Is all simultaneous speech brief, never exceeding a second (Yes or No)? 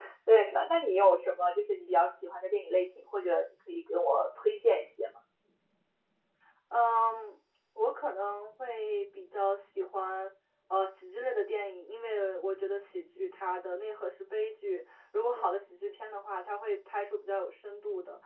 Yes